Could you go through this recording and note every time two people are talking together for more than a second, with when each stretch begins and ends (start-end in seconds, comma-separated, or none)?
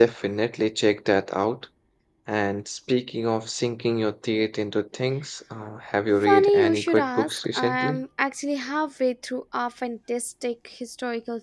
6.2-8.0